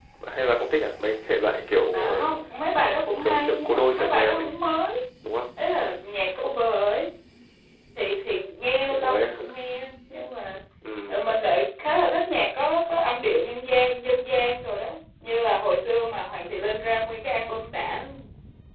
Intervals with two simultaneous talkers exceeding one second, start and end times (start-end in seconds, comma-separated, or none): 3.2-4.5